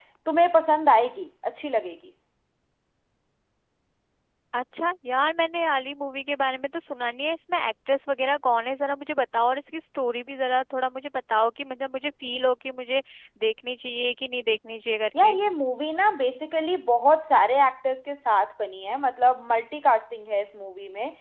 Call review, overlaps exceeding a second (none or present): none